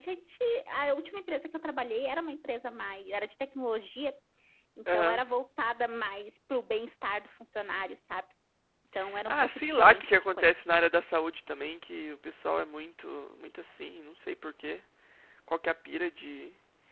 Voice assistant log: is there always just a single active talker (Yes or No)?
No